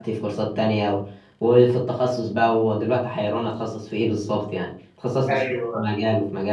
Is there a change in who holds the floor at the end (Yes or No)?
No